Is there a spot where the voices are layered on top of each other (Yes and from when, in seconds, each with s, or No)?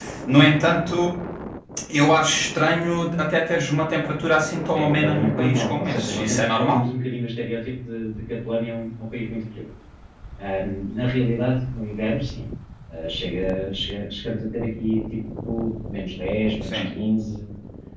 Yes, from 4.8 s